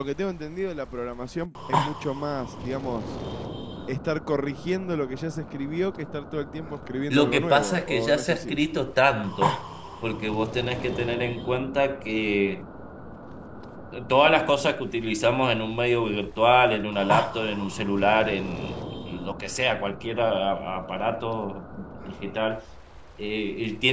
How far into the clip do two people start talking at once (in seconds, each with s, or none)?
7.1 s